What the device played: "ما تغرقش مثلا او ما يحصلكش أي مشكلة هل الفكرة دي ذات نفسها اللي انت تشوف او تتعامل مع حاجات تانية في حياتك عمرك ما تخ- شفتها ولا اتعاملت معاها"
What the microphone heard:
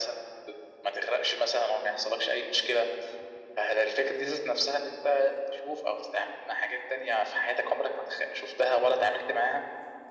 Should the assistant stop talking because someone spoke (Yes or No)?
No